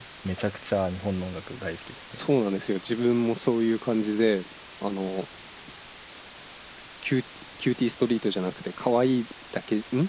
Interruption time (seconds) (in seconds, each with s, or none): none